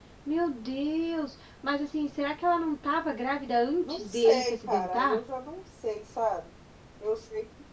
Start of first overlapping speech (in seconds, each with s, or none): 3.8 s